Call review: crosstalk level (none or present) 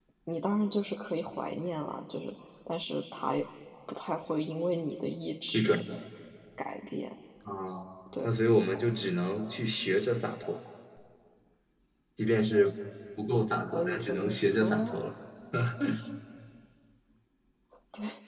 present